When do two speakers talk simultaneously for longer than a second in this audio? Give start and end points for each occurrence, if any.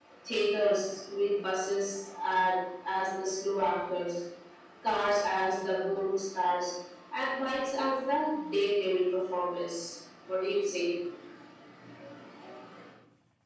none

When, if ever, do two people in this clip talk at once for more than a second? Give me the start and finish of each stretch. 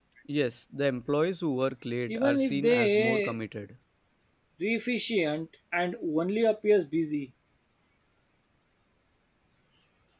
2.1-3.3

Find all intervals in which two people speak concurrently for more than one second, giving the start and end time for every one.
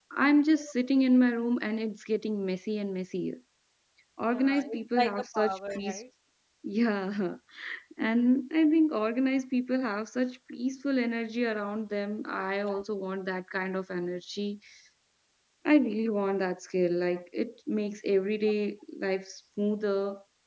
4.3-6.0

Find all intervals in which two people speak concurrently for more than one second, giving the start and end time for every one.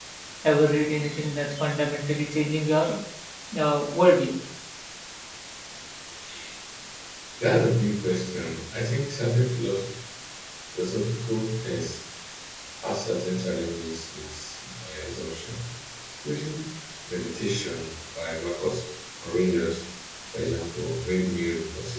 none

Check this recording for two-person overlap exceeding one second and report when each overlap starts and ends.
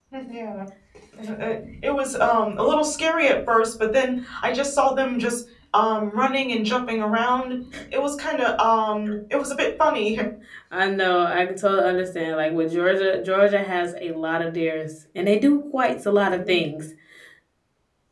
none

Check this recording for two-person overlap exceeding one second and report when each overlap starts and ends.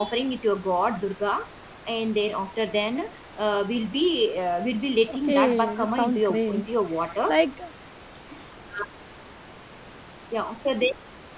5.1-6.7

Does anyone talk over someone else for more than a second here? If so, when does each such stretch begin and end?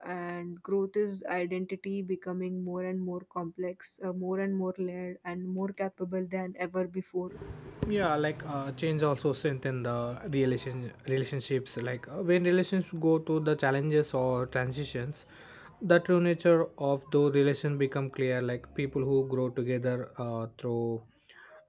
none

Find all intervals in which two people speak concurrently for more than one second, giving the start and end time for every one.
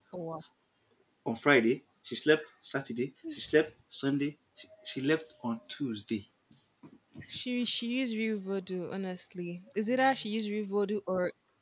none

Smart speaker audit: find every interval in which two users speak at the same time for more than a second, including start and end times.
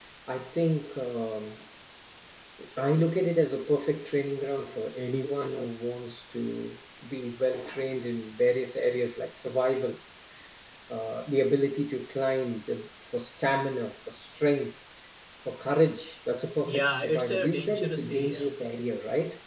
16.6-18.5

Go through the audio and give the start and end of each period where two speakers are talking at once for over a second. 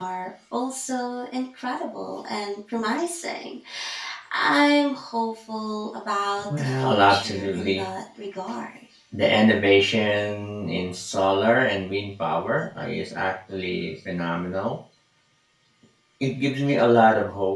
6.6-7.8

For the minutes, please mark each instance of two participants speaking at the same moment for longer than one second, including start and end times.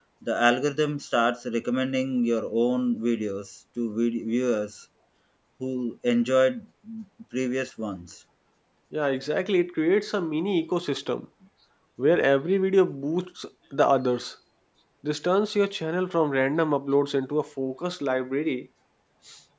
none

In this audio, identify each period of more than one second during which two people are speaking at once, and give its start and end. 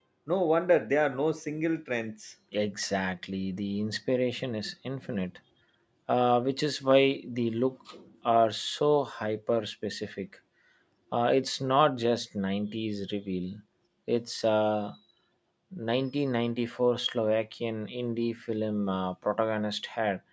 none

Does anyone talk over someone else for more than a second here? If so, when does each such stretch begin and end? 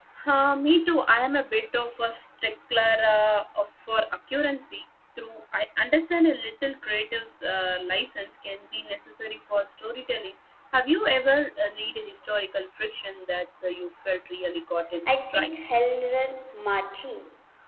none

